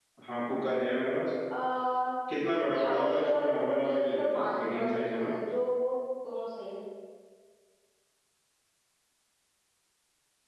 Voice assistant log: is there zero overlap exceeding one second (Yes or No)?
No